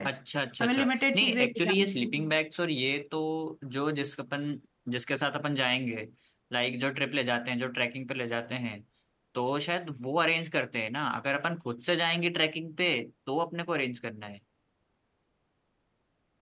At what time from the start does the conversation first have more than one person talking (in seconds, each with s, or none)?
0.6 s